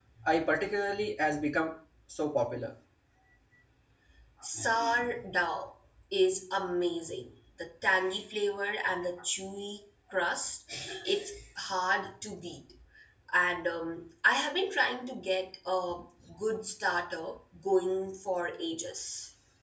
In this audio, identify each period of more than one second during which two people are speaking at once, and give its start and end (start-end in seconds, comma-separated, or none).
none